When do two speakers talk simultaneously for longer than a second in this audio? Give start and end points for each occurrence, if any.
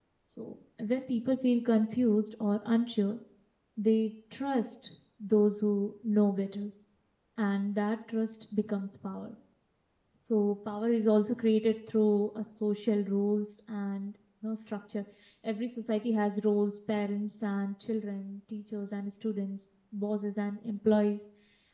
none

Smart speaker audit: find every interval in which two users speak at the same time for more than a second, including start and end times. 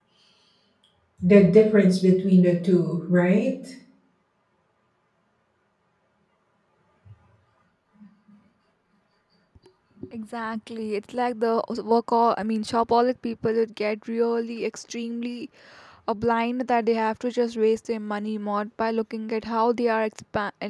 none

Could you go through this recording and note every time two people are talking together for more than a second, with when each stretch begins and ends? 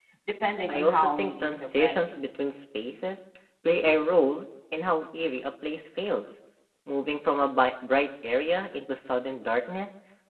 0.7-2.1

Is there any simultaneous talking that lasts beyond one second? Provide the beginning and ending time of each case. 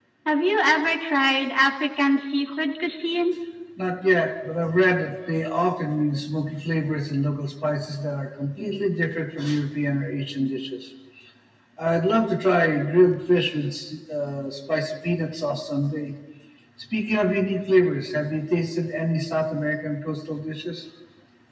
none

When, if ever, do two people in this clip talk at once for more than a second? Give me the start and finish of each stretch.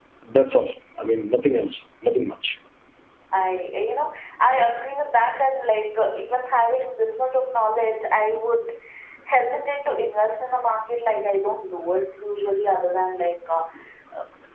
none

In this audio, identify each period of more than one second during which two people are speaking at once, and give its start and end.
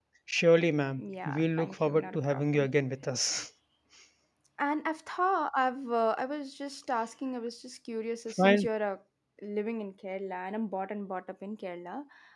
1.0-2.7

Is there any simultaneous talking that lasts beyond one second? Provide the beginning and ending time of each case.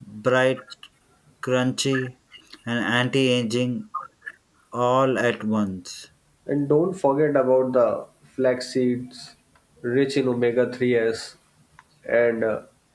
none

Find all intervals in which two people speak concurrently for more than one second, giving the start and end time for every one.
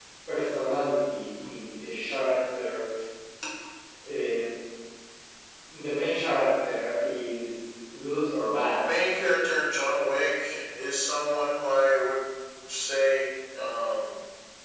none

